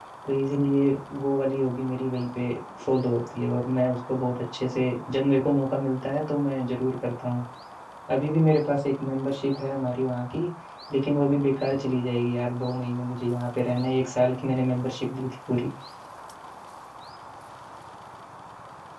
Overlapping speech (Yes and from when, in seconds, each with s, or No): No